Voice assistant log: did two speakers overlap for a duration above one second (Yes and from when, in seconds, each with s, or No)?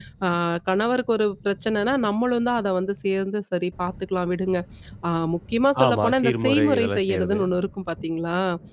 Yes, from 5.8 s